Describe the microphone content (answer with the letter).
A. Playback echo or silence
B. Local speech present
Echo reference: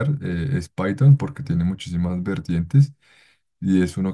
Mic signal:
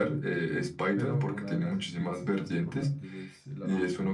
B